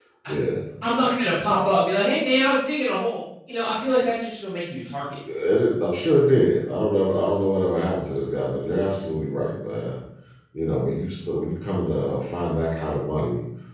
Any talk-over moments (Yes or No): No